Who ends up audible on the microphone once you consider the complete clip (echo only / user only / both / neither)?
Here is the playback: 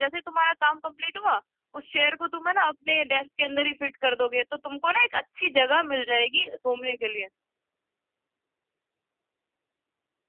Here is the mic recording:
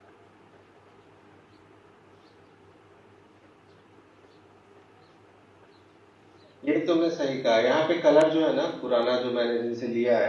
user only